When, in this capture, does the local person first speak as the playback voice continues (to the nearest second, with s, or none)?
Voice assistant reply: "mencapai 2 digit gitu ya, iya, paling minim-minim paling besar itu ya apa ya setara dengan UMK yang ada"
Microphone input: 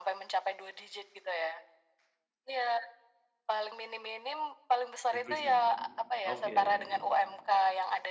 5 s